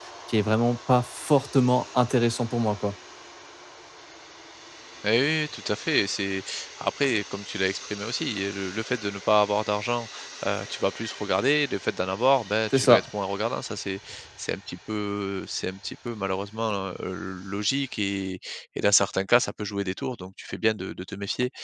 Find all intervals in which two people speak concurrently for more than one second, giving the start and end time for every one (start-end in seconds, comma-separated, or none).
none